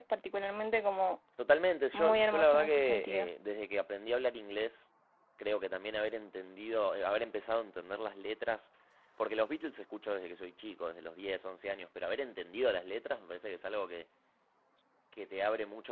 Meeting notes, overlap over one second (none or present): present